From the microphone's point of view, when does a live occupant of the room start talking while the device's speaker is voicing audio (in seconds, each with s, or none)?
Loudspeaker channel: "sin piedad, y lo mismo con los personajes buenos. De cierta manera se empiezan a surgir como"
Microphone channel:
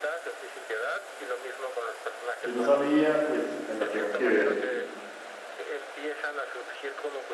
2.4 s